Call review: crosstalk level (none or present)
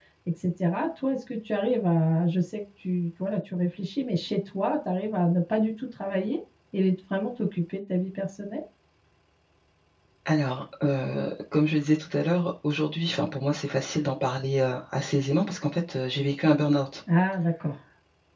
none